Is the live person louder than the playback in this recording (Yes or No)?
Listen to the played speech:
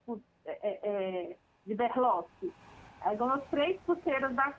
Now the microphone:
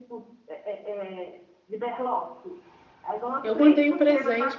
Yes